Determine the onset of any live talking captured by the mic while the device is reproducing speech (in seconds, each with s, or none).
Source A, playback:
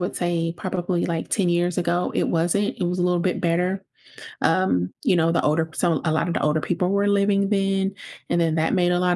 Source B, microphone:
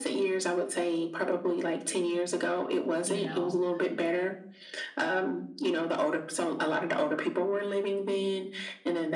3.0 s